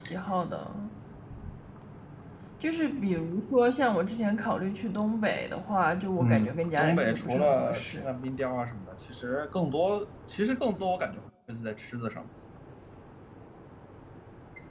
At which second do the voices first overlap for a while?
6.2 s

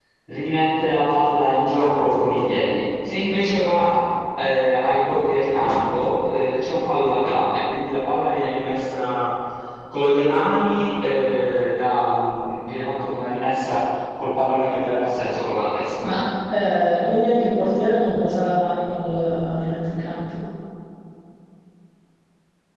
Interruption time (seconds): none

